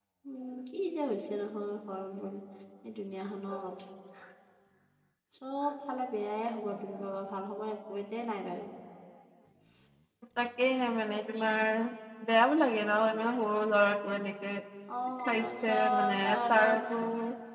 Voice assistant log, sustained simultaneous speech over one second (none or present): present